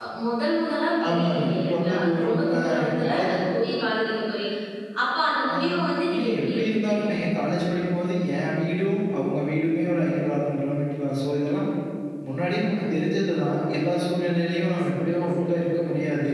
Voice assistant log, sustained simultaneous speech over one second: present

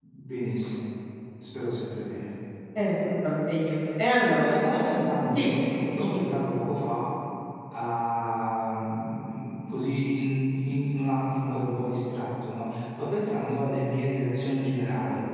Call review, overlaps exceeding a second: none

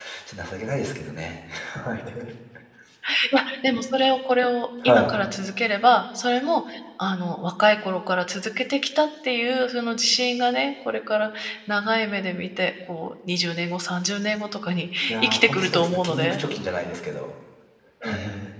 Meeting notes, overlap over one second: present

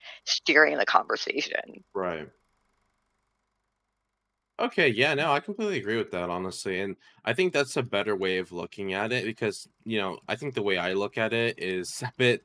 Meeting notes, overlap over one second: none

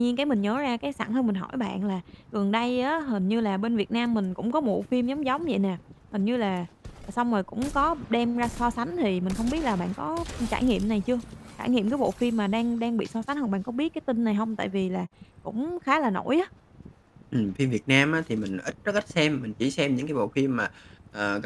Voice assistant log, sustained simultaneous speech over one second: none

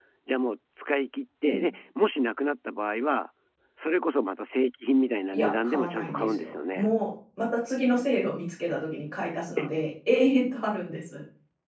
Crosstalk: present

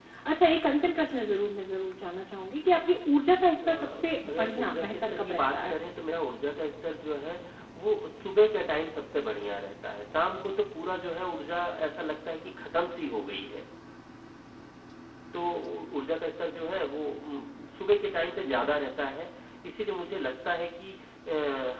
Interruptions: present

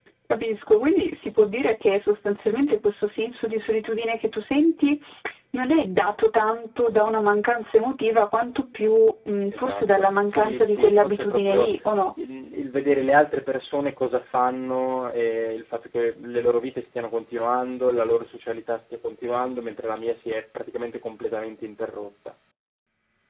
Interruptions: present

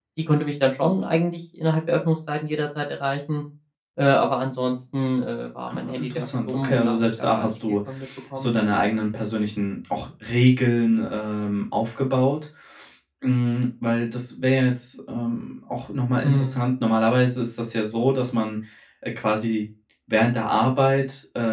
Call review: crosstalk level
present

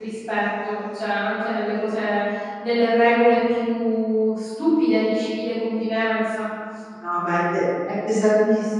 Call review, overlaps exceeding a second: none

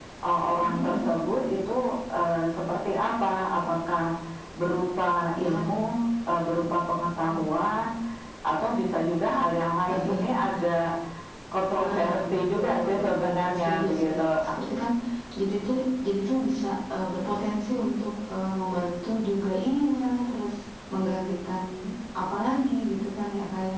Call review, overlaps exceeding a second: present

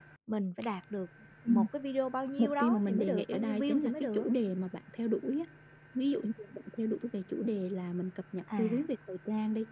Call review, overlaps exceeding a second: present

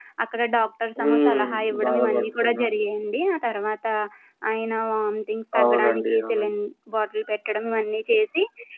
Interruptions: present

